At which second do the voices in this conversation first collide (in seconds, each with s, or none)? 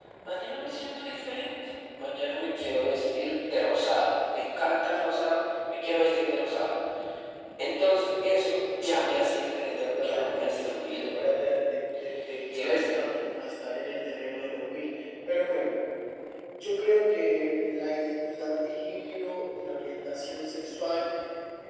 9.7 s